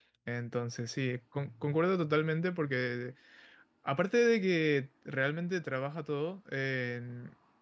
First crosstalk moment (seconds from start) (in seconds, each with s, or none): none